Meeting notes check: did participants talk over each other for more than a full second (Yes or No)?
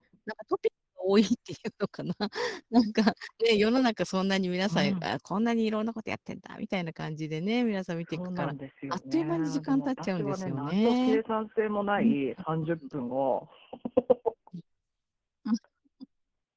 Yes